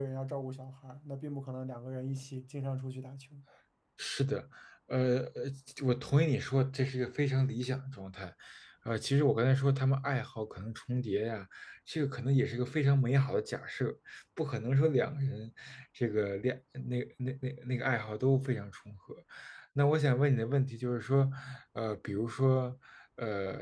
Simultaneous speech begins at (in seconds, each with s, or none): none